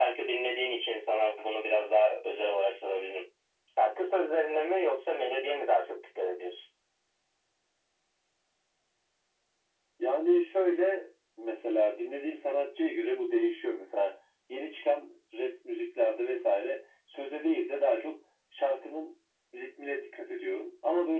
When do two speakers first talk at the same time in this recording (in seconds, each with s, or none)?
none